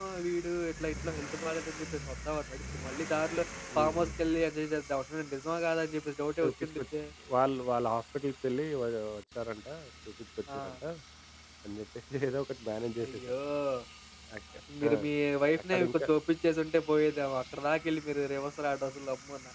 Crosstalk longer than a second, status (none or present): none